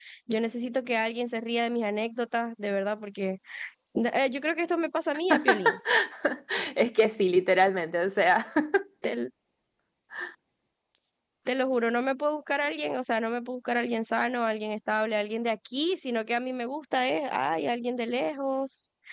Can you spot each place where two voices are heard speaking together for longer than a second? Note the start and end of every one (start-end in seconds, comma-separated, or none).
none